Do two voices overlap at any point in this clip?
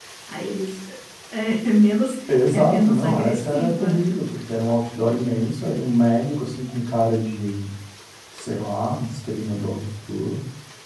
Yes, from 2.3 s

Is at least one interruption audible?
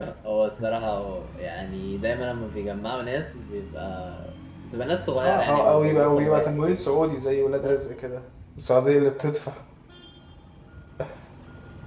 Yes, from 5.2 s

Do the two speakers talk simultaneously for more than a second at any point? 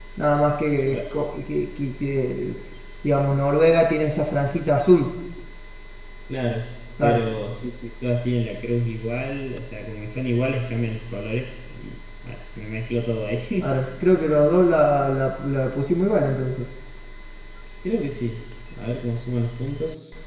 No

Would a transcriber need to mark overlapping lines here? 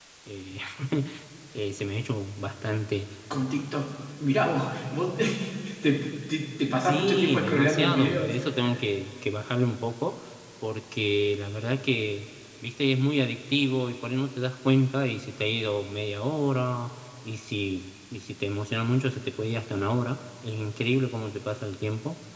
Yes, from 6.8 s

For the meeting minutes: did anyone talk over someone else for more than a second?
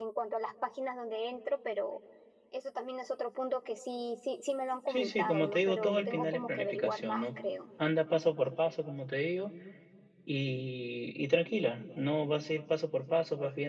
Yes, from 4.9 s

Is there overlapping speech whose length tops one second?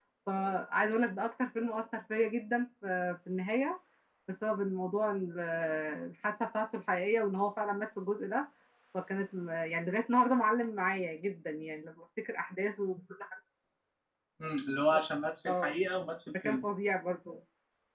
No

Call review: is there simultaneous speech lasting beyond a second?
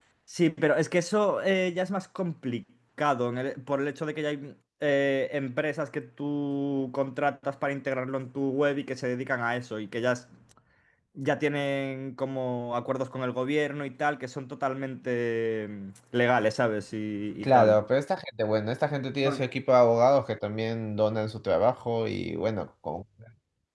No

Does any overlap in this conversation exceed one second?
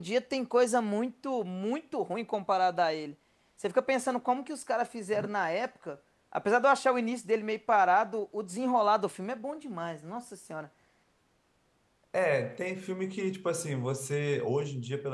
No

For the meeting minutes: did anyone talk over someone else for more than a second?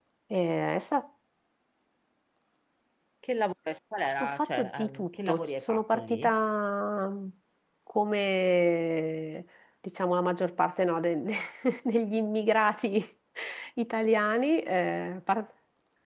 Yes, from 4.2 s

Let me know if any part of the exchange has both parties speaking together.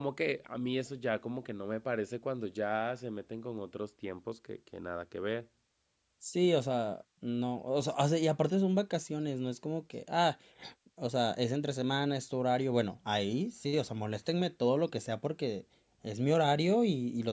No

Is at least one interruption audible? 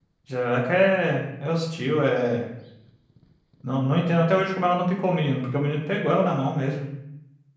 No

